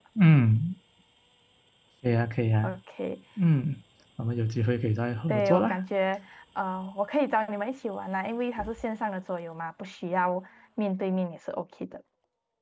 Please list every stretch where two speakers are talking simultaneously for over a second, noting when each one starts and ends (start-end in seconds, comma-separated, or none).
none